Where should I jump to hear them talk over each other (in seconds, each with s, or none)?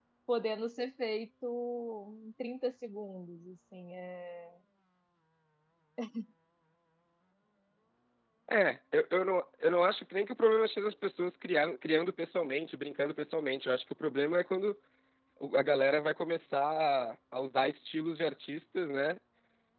none